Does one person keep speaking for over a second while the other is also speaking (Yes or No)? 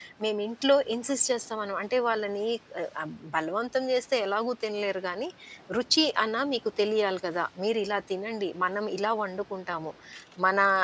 No